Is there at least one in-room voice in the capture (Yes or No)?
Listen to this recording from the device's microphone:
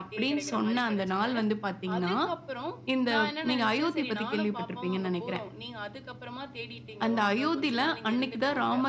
Yes